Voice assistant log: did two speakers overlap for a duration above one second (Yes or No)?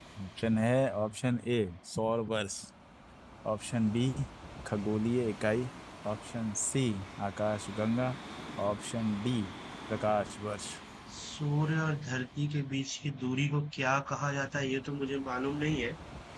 No